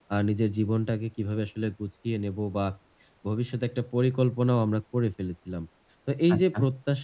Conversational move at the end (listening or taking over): listening